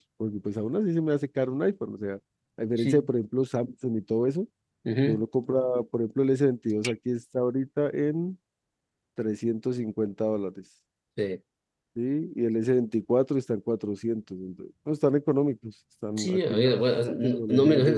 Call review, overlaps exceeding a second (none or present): present